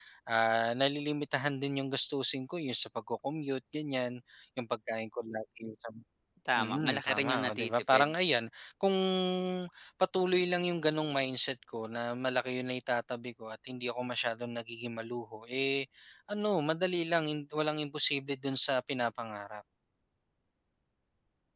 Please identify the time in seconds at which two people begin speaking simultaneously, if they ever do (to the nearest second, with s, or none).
7 s